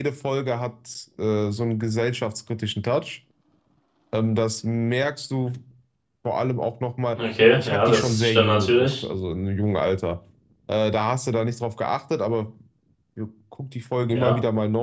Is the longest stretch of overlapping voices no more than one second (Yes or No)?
No